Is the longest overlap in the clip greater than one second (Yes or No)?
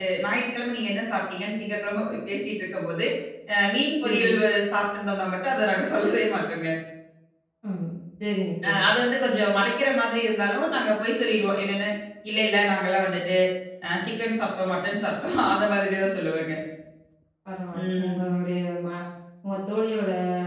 No